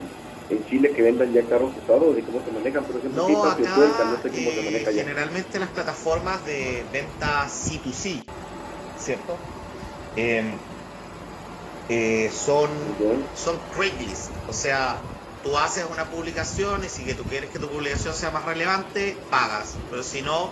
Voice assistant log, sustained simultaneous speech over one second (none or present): present